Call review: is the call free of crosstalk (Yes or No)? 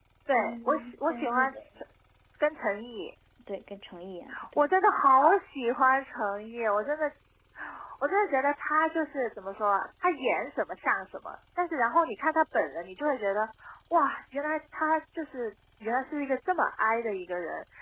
No